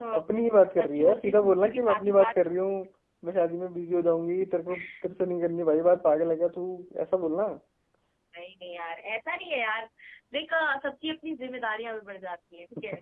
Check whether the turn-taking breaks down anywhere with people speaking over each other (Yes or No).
Yes